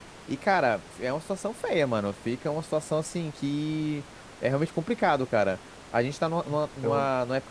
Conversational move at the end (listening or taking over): listening